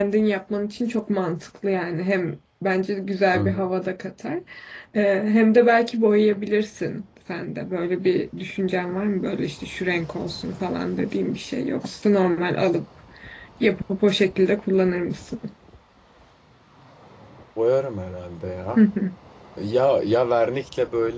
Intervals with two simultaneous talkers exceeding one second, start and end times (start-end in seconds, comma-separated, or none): none